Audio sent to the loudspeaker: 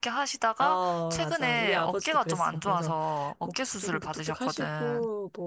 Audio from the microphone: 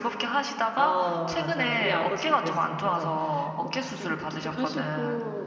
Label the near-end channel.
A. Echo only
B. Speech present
A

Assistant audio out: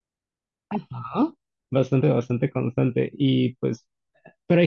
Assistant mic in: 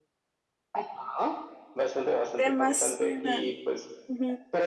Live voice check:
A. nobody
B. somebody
B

